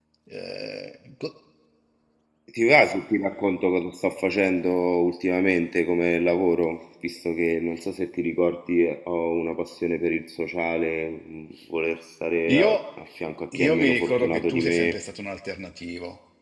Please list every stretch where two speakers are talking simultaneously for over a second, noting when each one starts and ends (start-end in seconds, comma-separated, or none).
13.5-15.0